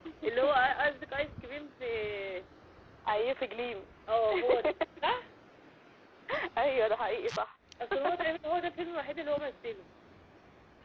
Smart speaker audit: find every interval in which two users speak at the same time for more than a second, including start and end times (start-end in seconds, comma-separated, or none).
none